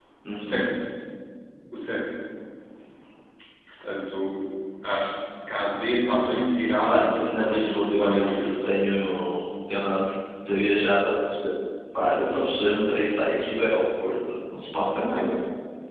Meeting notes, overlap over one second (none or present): present